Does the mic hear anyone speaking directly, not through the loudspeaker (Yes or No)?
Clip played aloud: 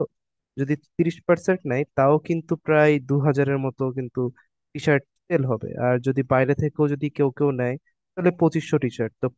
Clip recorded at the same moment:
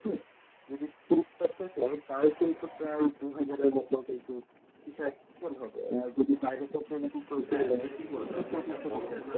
Yes